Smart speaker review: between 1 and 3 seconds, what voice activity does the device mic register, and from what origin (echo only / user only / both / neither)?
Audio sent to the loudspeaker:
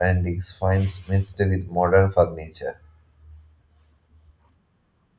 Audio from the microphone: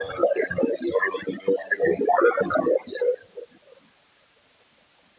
echo only